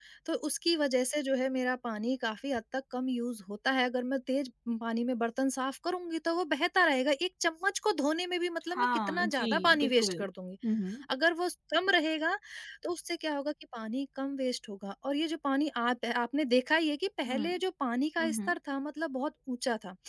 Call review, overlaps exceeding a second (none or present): present